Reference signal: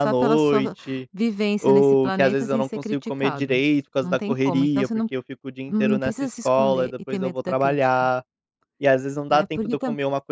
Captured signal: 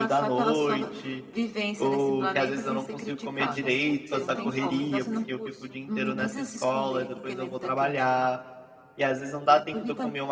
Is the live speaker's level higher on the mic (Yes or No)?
No